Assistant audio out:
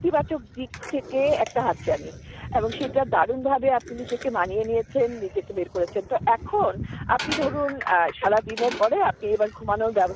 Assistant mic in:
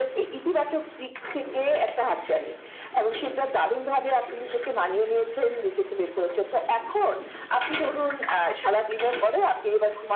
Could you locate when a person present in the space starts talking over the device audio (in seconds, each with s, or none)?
none